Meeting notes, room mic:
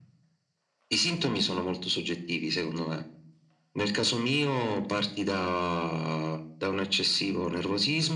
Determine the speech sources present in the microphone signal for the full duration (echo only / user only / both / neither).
echo only